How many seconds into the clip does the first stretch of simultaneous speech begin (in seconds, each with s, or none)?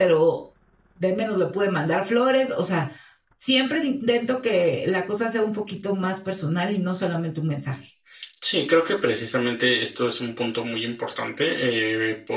none